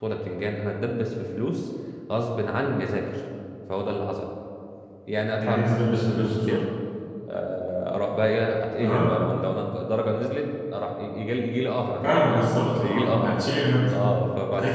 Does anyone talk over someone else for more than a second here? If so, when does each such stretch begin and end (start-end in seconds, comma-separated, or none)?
5.4-6.6, 12.1-13.4